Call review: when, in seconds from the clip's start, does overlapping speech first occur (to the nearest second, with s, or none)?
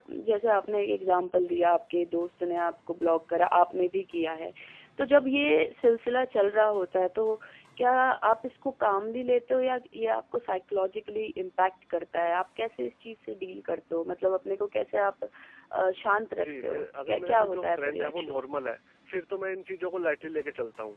16 s